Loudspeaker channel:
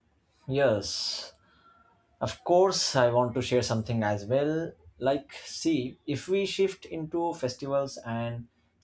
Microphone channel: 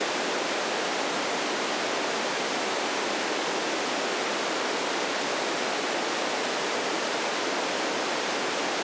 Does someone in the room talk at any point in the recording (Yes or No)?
No